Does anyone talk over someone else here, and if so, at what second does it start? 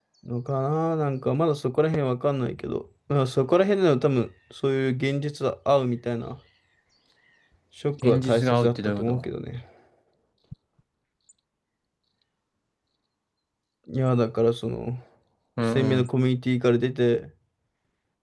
8.0 s

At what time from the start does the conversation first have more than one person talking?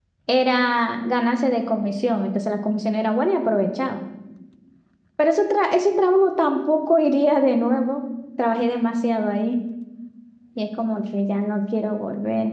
none

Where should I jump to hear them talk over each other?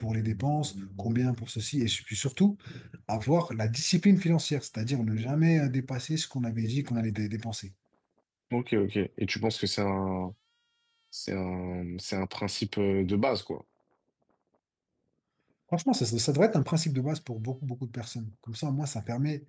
none

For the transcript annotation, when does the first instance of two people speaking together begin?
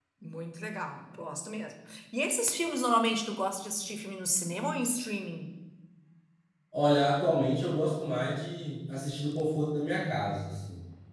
none

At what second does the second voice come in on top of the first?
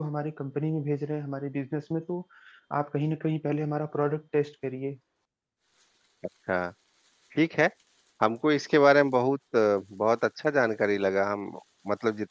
none

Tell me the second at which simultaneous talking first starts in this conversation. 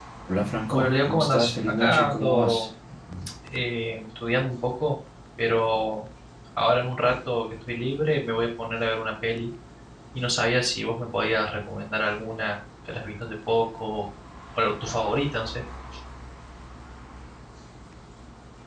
0.7 s

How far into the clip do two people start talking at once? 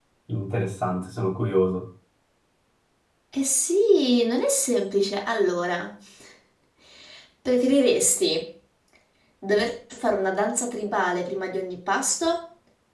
none

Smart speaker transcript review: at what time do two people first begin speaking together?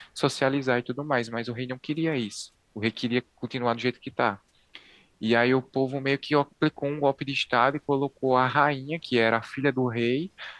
none

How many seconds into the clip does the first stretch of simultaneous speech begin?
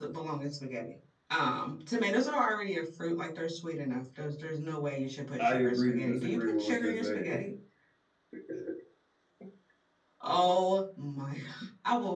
5.4 s

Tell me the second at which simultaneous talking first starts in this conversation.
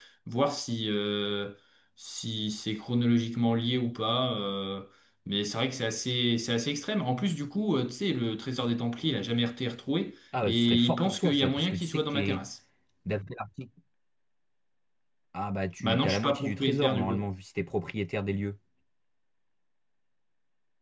10.4 s

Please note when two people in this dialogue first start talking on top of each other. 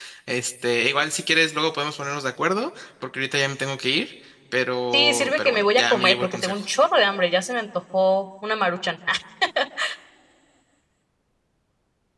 4.9 s

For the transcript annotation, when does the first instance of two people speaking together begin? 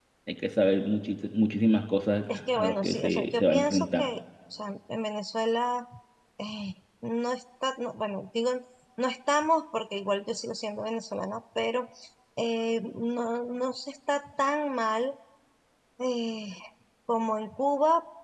2.3 s

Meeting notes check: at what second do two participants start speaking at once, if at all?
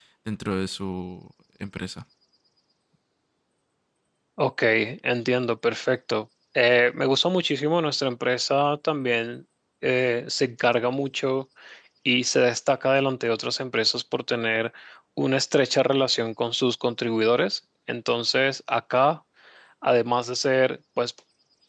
none

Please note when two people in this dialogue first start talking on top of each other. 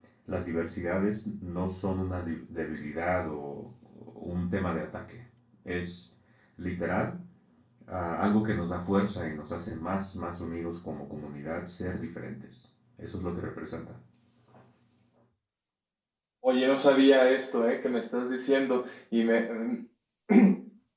none

